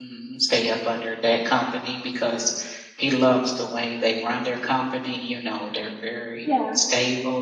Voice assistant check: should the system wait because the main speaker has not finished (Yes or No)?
Yes